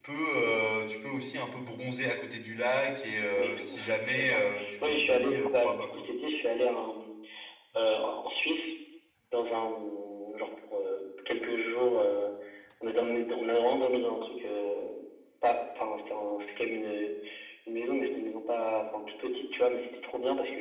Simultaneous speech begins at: 3 s

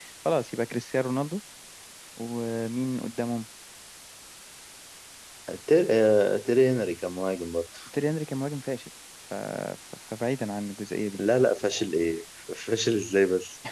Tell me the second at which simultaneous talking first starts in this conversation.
none

